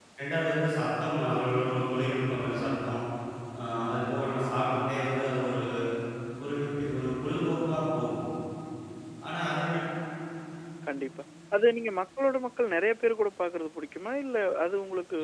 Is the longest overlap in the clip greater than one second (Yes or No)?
No